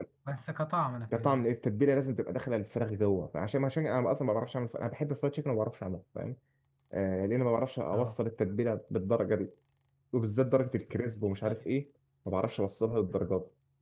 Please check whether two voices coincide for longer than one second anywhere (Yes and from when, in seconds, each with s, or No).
No